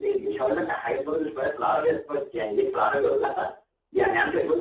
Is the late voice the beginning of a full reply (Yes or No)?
No